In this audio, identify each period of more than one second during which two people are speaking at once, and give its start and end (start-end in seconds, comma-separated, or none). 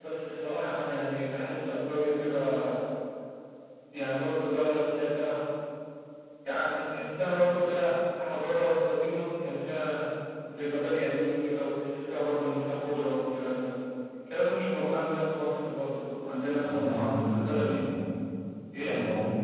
16.6-17.8